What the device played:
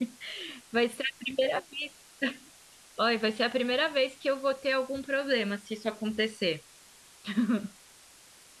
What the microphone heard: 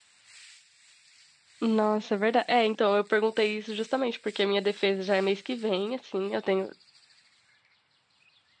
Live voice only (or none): Nossa, é verdade. É, então, eu perguntei isso justamente porque a minha defesa já é mês que vem, assim, eu tenho